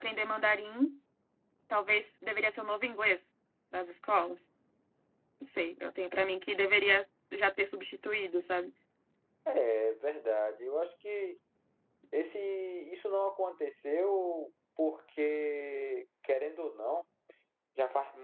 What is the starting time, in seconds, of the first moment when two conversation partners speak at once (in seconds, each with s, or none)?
none